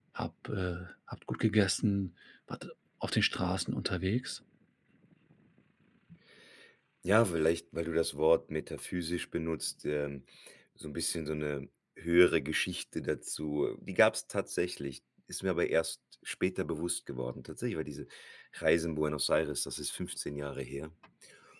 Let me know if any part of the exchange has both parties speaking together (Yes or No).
No